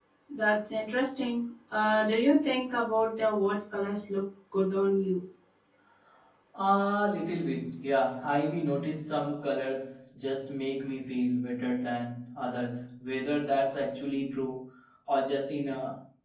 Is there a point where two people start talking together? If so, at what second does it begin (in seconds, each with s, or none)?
none